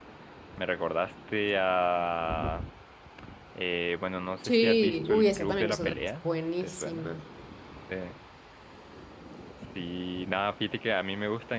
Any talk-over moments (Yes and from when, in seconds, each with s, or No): Yes, from 4.4 s